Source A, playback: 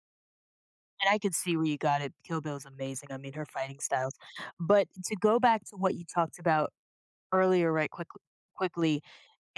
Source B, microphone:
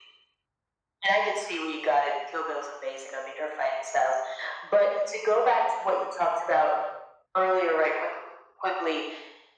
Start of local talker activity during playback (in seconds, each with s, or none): none